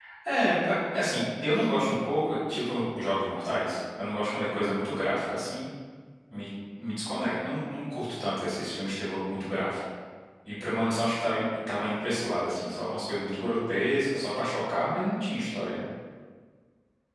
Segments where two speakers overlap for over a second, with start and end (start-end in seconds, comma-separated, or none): none